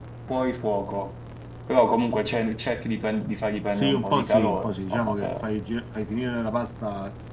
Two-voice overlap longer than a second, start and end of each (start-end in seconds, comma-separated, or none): 3.7-5.3